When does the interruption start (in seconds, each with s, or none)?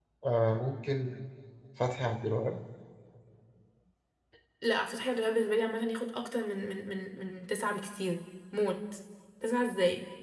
none